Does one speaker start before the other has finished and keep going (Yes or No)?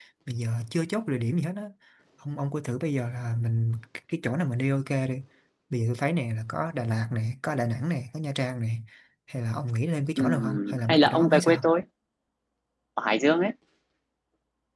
Yes